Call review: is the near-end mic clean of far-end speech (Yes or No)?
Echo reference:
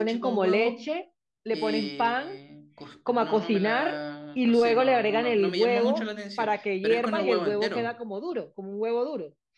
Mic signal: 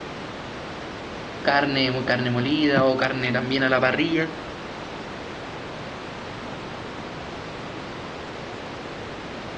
Yes